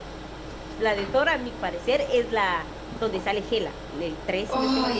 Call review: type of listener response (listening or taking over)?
taking over